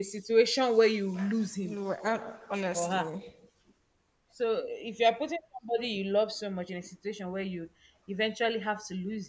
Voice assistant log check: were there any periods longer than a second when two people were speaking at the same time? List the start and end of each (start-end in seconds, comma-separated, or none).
none